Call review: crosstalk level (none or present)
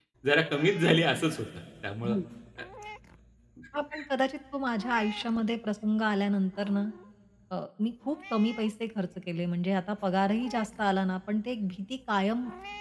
none